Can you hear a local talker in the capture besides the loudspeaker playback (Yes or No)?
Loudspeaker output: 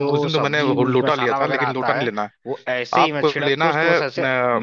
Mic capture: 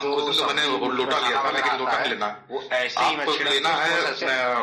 No